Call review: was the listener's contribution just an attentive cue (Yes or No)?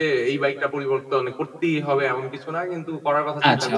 No